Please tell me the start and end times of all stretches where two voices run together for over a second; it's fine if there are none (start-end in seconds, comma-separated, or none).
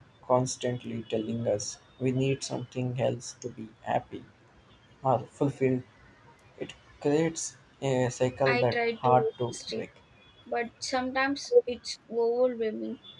8.4-9.8